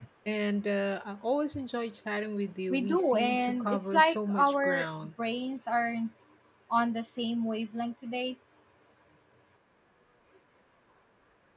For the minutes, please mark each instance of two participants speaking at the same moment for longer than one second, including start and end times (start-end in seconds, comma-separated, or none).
2.7-4.9